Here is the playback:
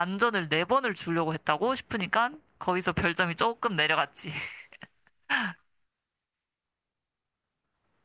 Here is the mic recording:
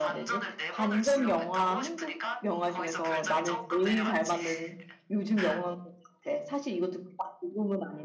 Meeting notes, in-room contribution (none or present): present